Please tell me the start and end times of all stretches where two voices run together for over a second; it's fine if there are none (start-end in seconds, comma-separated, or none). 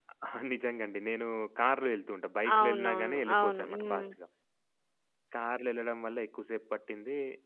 2.6-4.1